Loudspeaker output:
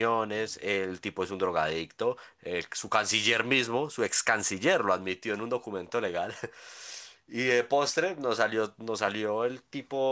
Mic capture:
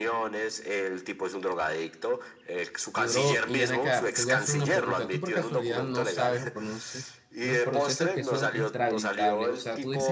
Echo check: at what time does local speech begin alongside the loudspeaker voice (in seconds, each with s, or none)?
2.9 s